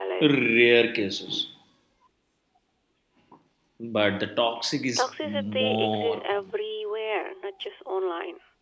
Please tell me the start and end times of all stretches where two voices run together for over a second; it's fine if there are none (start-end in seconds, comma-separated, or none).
5.0-6.4